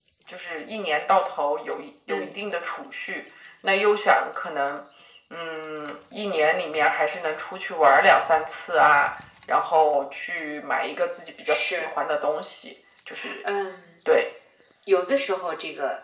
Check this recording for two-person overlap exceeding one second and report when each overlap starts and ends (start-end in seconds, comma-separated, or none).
none